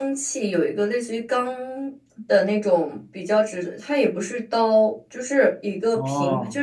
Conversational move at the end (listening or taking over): listening